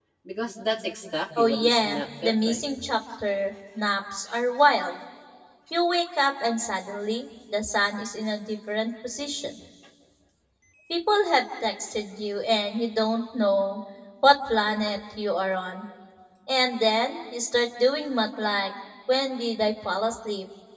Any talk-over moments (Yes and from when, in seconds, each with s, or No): Yes, from 1.4 s